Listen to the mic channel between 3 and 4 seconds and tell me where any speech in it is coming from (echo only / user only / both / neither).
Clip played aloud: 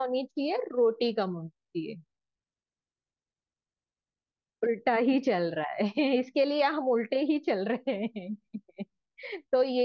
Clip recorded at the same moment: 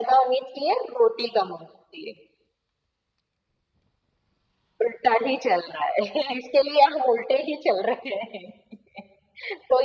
neither